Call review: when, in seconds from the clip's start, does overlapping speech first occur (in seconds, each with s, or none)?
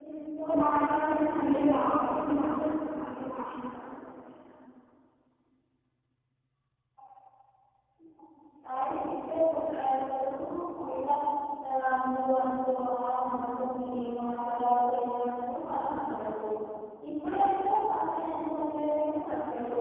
0.6 s